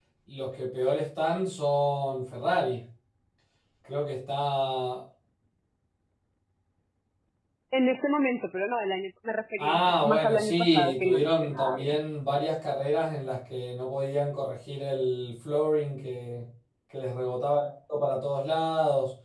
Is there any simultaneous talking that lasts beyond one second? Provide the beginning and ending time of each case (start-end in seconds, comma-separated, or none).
9.6-12.0